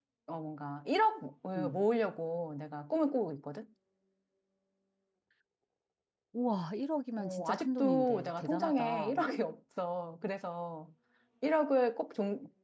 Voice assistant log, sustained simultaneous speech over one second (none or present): present